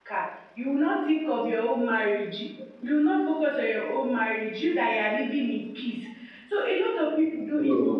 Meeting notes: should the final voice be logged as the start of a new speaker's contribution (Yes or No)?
No